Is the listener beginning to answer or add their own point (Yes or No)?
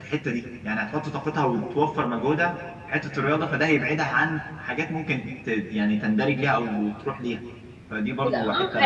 Yes